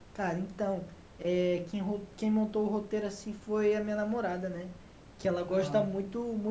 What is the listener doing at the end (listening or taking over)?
listening